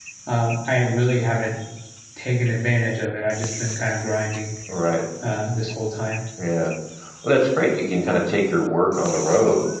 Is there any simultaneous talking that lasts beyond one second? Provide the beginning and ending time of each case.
none

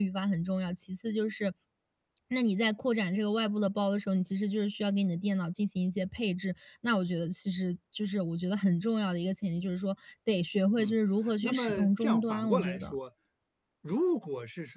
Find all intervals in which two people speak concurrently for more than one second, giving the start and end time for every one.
11.4-13.0

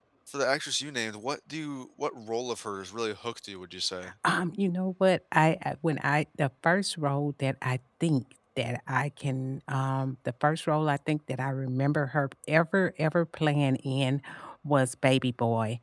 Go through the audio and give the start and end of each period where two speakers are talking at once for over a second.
none

